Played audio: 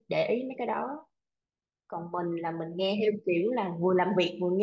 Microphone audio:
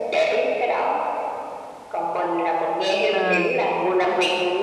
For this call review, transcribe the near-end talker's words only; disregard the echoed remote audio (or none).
à